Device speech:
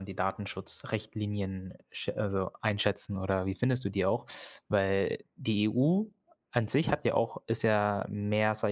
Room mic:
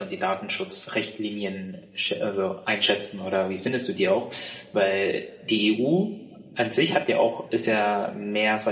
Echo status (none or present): present